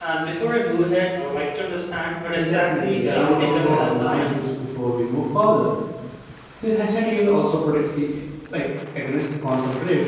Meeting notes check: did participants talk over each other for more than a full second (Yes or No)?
Yes